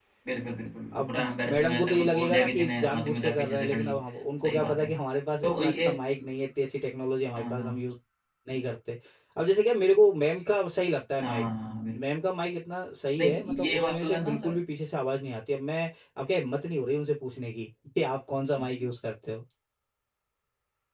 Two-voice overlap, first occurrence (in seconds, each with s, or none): 0.9 s